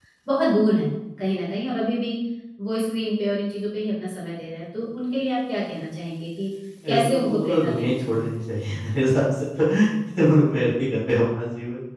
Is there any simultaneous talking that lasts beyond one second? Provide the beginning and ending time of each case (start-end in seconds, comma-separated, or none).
6.9-8.3